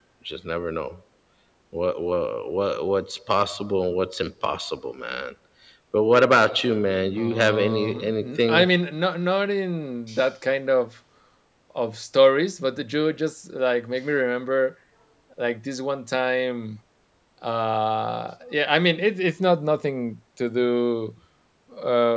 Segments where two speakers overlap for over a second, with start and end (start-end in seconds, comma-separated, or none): 7.2-8.7